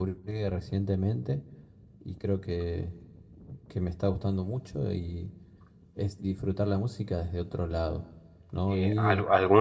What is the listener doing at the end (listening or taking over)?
taking over